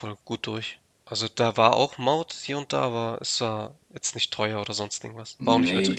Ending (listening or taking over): taking over